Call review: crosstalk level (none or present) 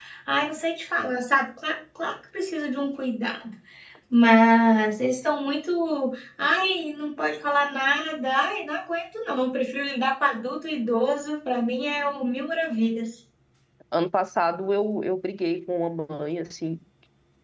none